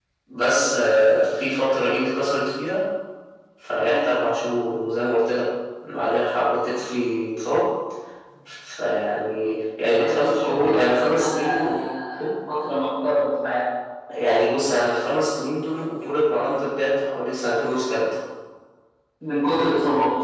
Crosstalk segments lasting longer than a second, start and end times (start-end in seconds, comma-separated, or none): 9.9-11.8